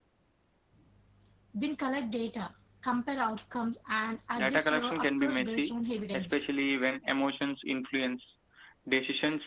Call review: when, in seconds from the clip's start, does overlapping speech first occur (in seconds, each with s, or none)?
4.4 s